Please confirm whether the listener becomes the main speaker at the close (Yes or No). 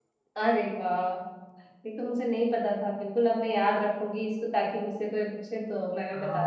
Yes